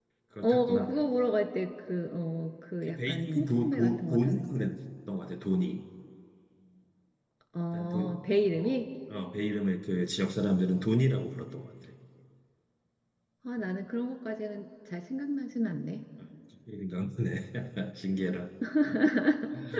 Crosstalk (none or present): present